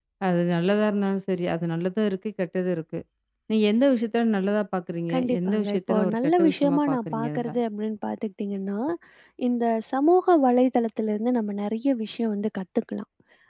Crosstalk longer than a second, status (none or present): present